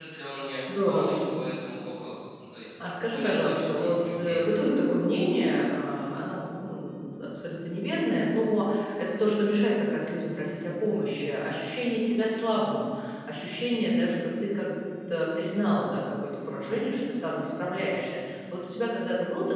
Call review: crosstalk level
present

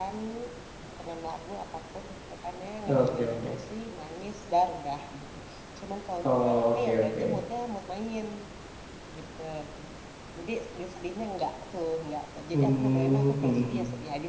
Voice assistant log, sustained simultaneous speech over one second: present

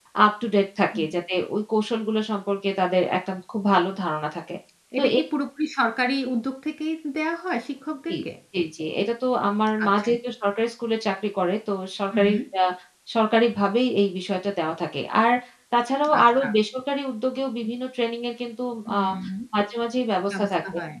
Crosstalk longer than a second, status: none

